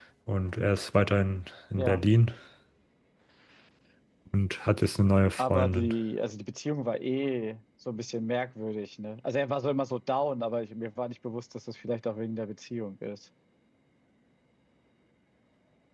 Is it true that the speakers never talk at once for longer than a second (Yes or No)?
Yes